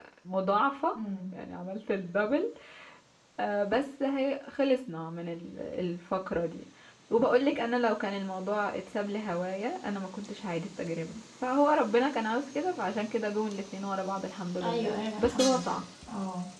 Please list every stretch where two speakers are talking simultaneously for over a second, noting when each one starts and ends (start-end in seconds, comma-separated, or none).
14.6-15.8